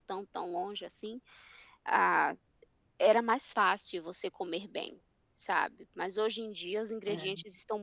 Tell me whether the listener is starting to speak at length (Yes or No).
No